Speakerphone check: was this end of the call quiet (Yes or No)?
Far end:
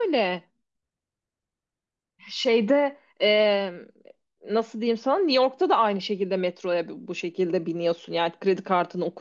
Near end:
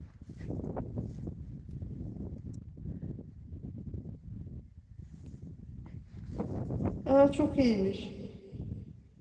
No